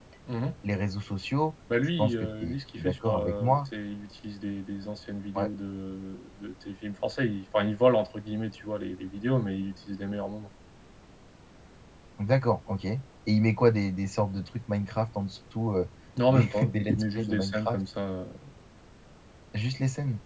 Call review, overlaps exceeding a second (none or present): present